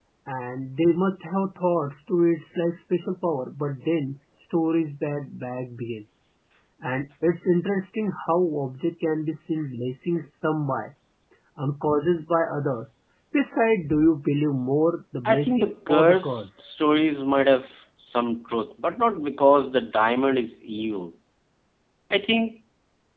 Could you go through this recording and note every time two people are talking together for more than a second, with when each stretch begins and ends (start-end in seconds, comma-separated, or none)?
15.2-16.5